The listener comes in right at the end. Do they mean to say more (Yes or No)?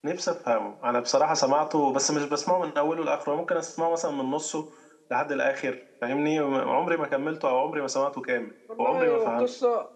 Yes